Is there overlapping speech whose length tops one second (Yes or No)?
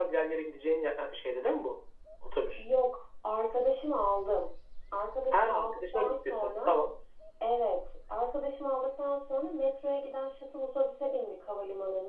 Yes